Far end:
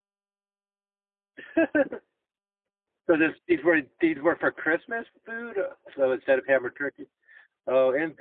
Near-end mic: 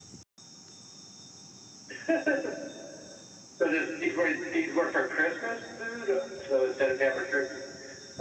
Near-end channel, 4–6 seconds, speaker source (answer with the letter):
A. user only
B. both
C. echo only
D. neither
C